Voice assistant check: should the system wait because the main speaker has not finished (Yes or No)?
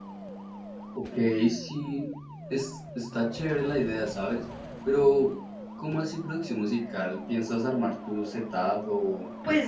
No